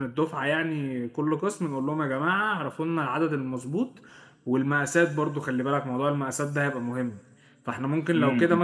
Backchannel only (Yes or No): Yes